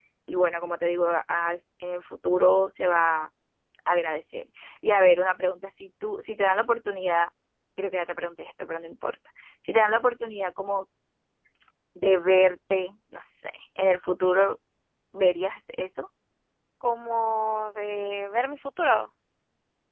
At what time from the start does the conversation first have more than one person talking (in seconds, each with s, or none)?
none